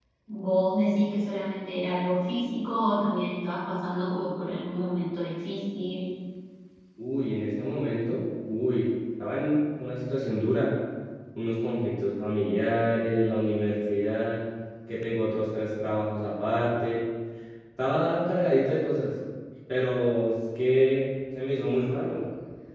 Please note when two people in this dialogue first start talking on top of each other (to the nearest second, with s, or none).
none